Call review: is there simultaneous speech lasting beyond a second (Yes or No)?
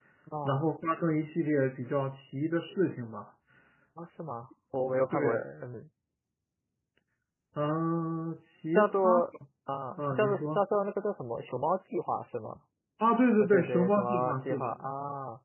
Yes